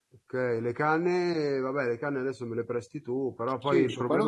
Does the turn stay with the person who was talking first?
No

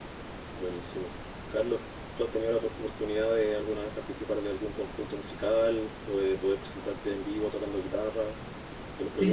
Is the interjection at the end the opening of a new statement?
Yes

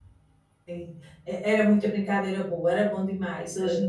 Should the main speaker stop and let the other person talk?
No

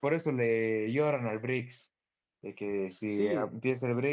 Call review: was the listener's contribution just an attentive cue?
Yes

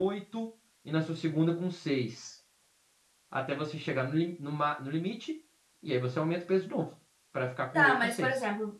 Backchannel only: No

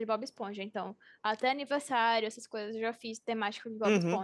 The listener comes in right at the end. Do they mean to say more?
No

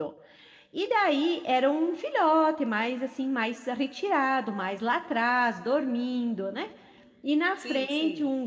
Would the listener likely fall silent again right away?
Yes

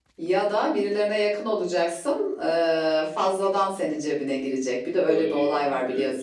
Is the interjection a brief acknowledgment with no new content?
No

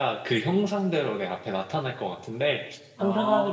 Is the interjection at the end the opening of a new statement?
No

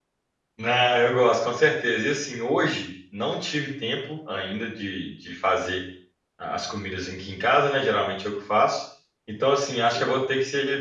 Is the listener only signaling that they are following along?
Yes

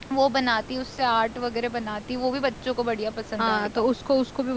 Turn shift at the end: Yes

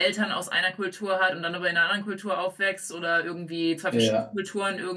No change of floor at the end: Yes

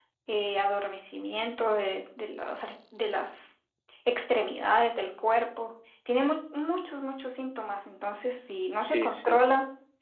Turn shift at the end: No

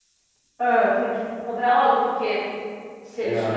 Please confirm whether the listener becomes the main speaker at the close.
No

